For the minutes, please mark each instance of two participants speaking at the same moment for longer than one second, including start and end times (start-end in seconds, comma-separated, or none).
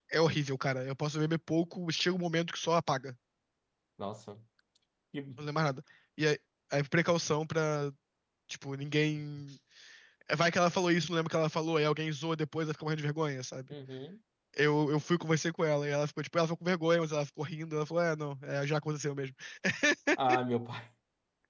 none